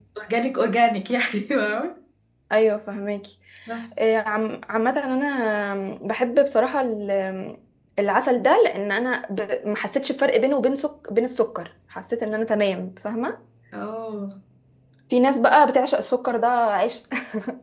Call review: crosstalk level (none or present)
none